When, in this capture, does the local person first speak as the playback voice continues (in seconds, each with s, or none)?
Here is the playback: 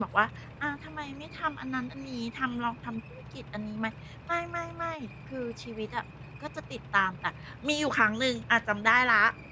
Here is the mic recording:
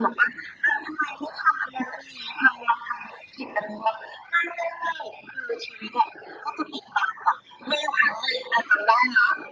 none